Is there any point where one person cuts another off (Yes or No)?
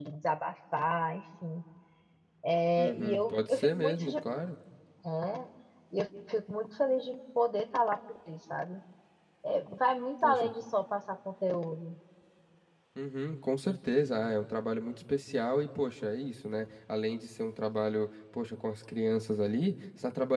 Yes